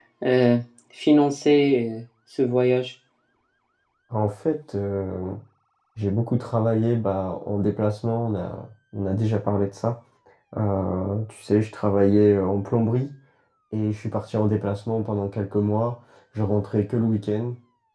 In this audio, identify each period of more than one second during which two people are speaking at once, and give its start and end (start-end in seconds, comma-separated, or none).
none